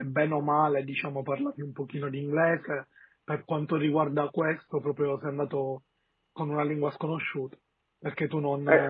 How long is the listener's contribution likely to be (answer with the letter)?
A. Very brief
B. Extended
A